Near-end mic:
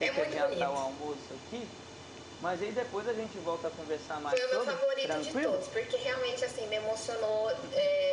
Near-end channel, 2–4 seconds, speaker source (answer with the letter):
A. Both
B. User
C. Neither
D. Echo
B